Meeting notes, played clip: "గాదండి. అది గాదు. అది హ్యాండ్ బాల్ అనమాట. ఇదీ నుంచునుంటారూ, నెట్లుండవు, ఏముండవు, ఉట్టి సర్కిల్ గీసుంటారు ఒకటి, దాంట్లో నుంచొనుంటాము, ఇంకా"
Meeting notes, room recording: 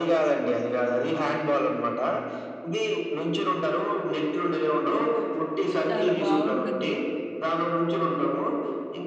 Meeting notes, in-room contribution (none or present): present